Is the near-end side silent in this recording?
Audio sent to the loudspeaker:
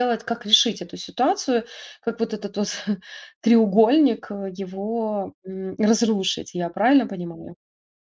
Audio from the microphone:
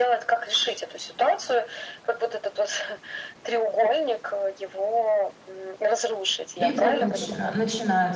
No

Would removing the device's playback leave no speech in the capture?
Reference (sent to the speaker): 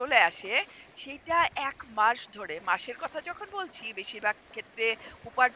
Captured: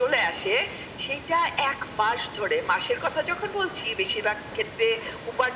Yes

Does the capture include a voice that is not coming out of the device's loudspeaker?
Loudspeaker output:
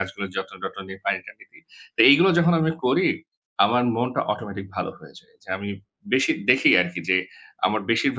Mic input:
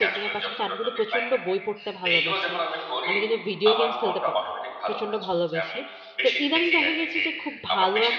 Yes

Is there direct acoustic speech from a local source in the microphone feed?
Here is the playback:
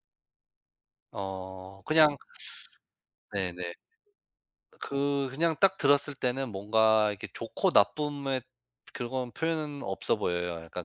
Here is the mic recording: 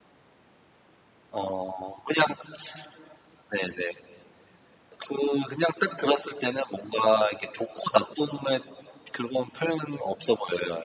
No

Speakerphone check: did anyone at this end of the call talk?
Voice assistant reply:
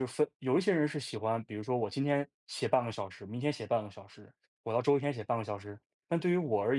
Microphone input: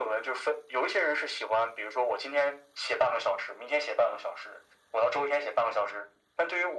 No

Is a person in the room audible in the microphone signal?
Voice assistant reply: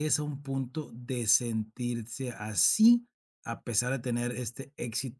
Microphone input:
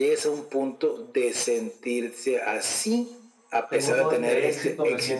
Yes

